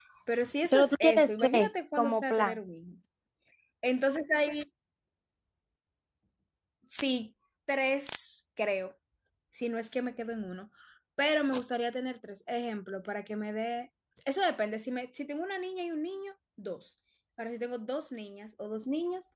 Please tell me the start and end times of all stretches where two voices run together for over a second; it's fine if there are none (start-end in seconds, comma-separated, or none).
0.7-2.6